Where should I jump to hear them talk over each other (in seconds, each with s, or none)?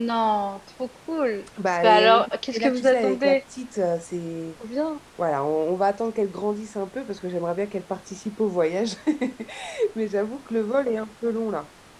1.8 s